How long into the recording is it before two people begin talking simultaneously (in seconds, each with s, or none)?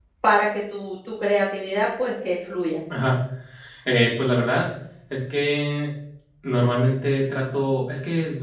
none